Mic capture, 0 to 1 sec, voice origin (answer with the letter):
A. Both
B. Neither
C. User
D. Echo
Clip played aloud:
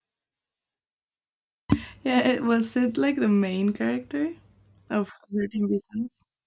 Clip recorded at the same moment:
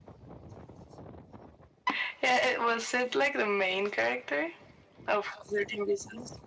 B